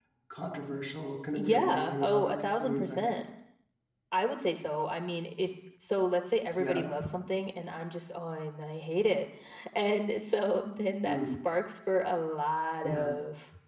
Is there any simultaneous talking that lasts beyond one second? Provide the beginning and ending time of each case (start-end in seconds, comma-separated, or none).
1.3-3.1